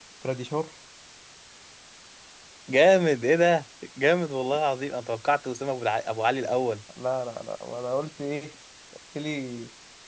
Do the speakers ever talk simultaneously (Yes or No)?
No